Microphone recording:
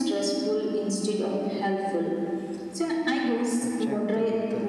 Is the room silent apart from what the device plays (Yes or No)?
No